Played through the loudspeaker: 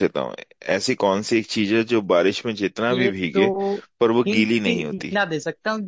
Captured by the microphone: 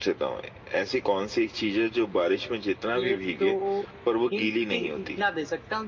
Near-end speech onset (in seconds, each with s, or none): none